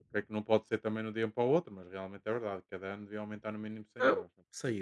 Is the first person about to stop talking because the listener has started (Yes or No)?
Yes